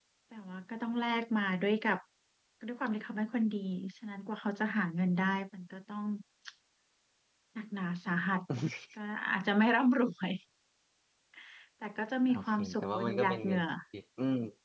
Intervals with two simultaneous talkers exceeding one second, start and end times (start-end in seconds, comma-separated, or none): 12.3-13.6